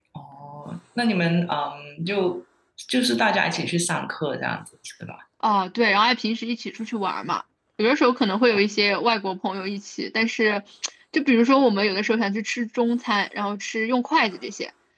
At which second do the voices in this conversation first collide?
none

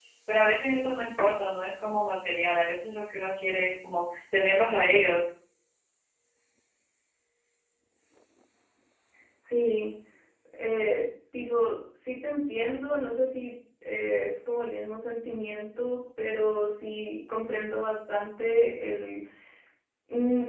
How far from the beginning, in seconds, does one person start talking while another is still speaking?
none

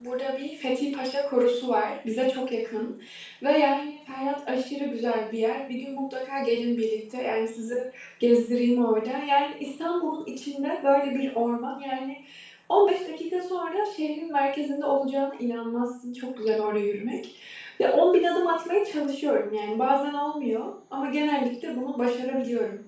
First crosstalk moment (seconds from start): none

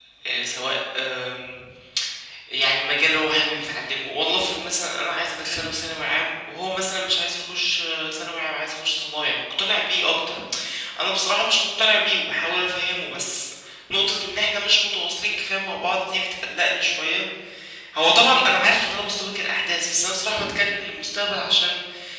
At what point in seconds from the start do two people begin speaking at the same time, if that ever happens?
none

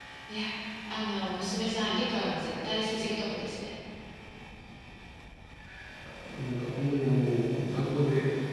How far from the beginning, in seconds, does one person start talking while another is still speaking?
none

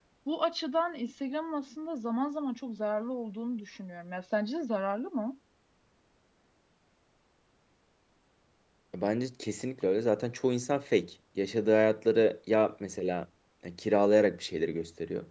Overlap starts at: none

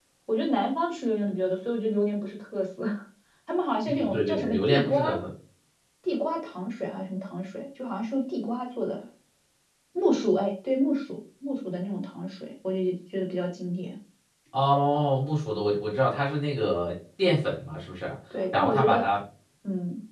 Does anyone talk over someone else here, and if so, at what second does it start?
3.9 s

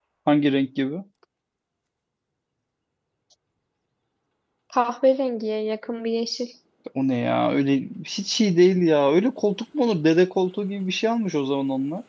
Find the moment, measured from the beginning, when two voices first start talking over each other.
none

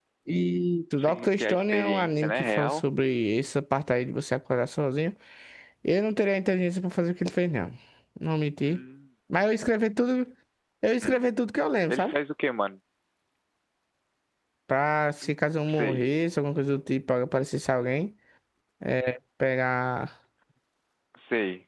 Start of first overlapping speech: 1.0 s

